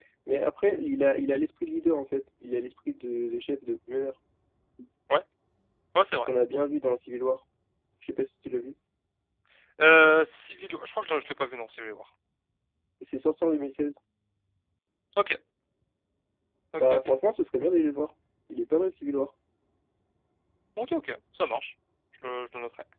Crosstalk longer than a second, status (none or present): none